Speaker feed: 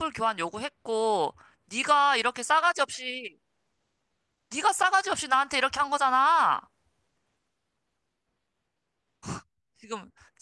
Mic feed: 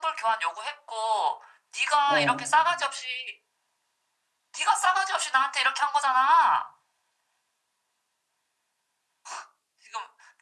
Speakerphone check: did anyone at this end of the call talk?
Yes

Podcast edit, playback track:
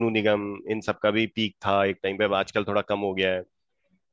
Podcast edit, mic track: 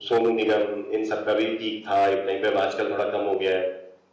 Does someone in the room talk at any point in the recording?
No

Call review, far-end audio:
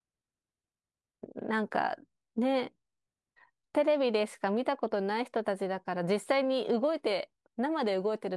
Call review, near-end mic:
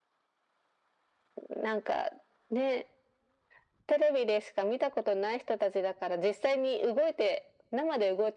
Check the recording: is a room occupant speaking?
No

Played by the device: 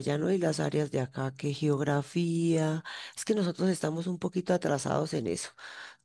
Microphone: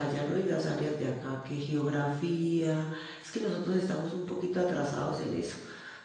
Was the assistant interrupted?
No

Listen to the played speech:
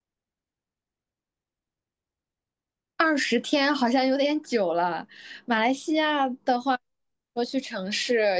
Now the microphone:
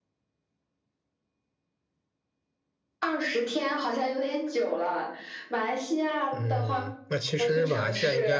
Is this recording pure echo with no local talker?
No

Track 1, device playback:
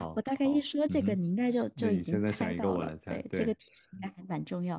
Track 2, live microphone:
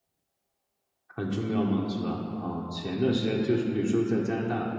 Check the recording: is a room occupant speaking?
Yes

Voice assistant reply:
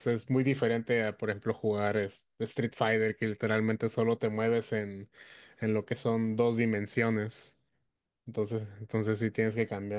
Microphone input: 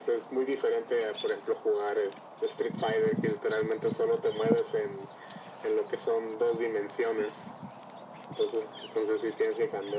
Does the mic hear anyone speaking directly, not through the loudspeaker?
No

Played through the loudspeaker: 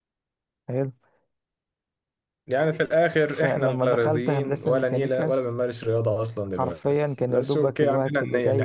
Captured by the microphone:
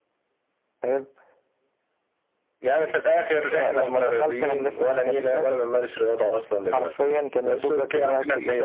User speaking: No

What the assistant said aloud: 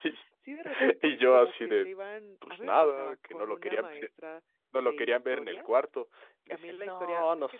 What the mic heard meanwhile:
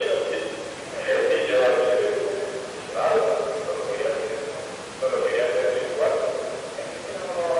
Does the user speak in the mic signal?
No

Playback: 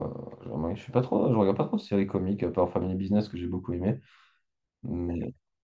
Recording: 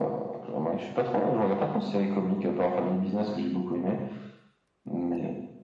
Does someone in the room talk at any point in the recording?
No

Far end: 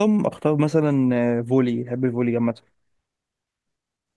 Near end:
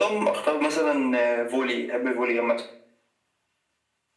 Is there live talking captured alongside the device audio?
No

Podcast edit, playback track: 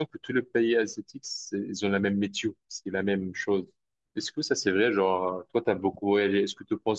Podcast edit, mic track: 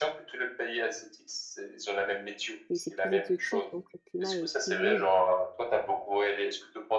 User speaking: Yes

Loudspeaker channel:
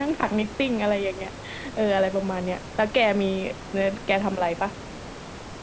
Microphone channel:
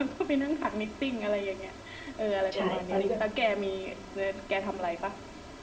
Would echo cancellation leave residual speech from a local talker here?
Yes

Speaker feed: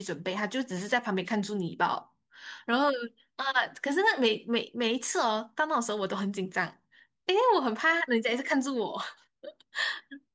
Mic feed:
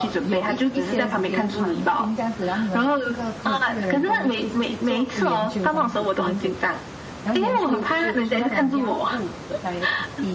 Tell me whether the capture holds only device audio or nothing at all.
No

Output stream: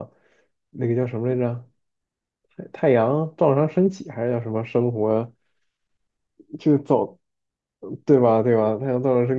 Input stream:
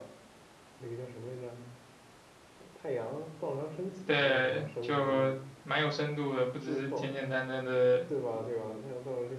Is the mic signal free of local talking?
No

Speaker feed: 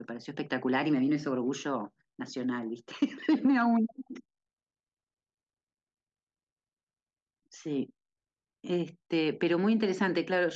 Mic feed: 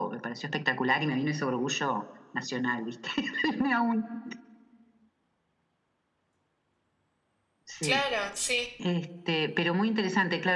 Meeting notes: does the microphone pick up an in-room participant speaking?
Yes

